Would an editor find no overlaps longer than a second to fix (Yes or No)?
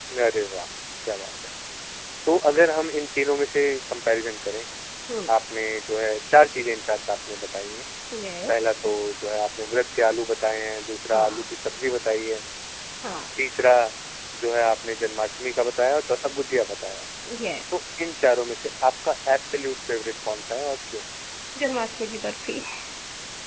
Yes